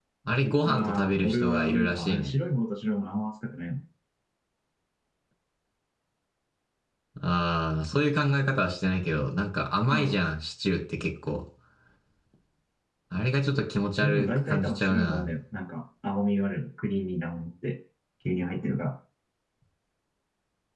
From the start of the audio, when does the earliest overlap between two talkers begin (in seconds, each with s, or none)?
0.6 s